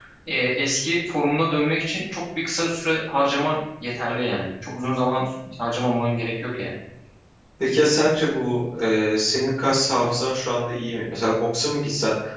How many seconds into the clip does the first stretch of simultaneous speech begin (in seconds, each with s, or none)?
none